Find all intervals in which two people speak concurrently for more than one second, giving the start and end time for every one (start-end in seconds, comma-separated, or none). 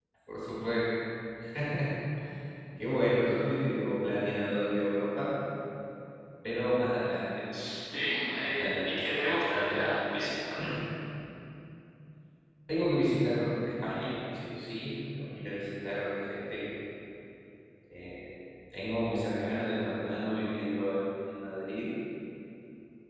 8.6-9.9